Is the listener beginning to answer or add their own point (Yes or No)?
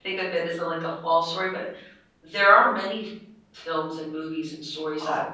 No